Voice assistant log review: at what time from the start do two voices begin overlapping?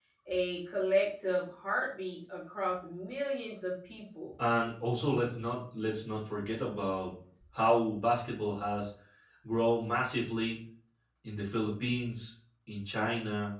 none

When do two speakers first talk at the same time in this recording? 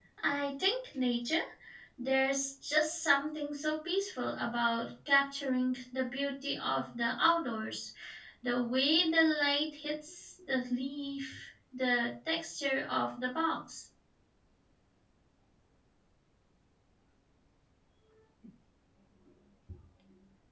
none

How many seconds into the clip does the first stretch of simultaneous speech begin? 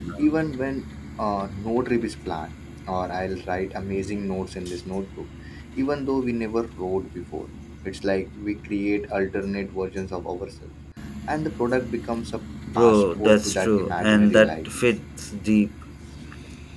12.7 s

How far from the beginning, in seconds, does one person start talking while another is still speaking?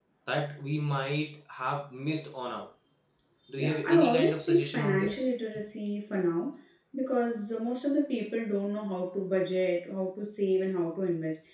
3.6 s

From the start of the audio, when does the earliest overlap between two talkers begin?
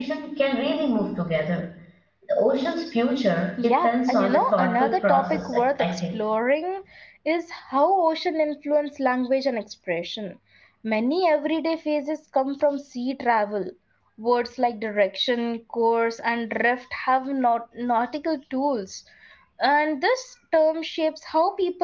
3.6 s

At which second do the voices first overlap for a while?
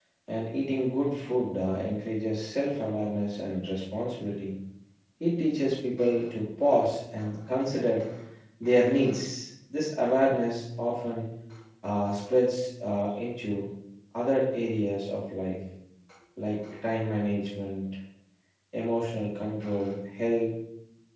none

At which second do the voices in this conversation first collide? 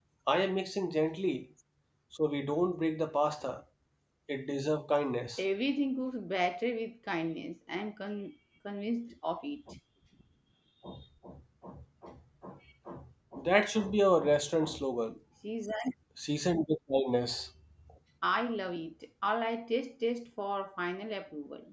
none

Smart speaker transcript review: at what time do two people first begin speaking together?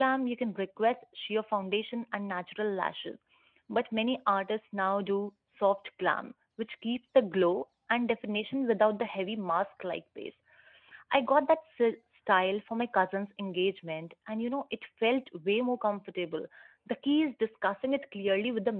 none

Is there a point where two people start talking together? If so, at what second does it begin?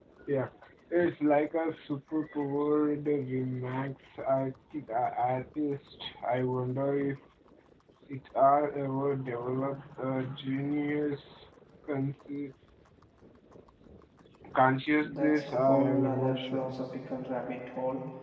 15.0 s

